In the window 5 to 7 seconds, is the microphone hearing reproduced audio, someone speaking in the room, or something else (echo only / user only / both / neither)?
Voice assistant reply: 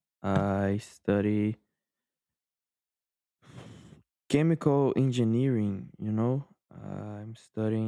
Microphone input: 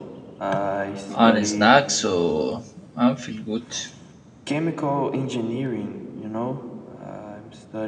echo only